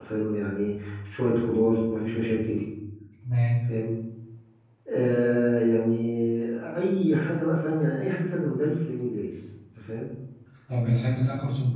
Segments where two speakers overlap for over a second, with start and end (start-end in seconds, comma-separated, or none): none